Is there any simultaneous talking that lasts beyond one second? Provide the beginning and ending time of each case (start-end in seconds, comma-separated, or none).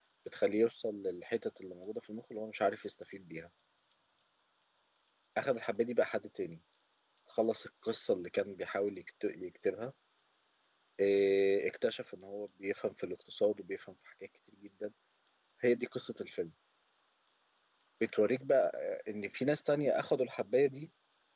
none